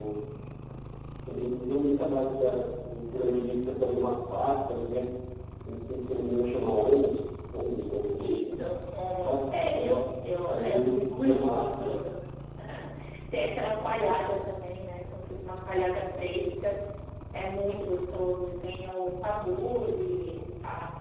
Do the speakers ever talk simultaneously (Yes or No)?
Yes